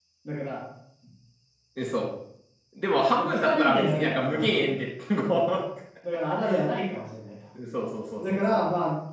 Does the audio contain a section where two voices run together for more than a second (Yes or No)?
Yes